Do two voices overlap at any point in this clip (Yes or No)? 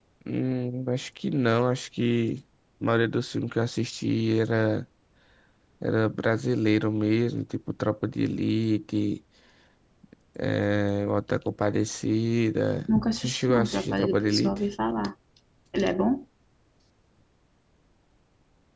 Yes